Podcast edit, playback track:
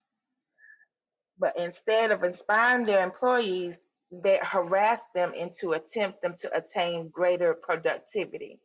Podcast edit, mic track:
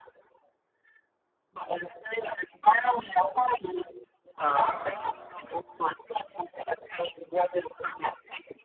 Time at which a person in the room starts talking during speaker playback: 4.4 s

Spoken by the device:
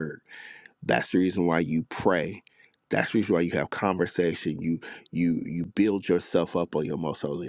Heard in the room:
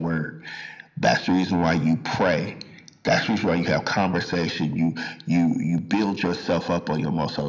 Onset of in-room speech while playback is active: none

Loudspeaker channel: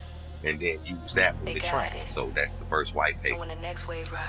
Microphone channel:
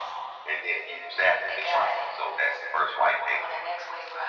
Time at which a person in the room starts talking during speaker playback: none

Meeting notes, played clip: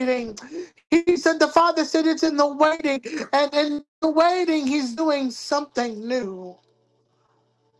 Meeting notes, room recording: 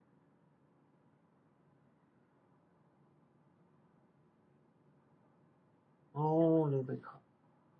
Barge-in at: 6.1 s

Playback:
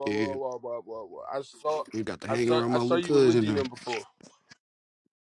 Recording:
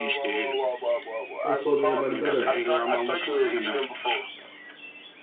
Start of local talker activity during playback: 1.4 s

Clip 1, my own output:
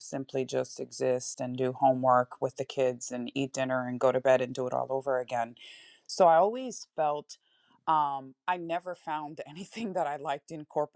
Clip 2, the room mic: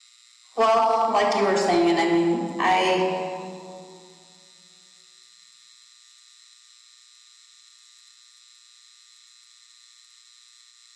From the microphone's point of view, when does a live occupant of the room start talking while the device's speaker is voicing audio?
0.6 s

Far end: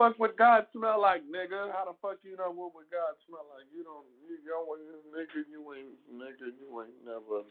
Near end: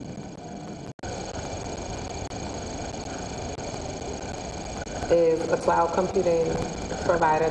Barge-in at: 5.1 s

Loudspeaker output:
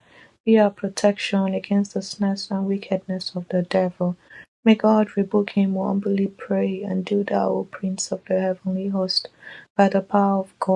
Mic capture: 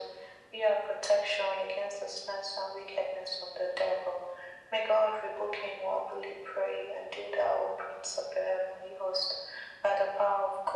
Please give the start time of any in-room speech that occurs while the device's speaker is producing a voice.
none

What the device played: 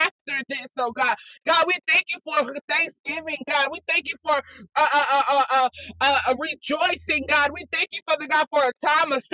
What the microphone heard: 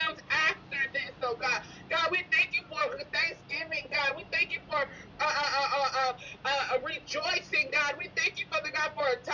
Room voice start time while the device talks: none

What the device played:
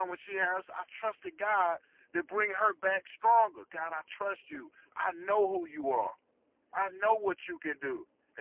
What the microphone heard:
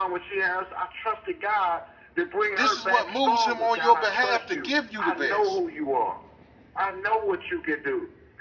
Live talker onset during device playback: 2.5 s

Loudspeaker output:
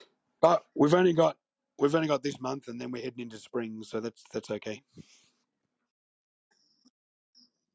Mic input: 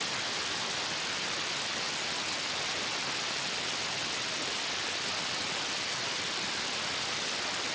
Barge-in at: none

